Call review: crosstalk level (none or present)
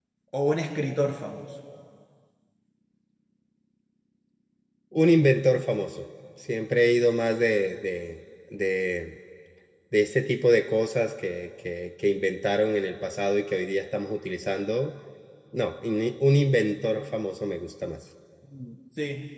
none